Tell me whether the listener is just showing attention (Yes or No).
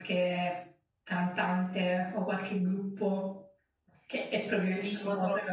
No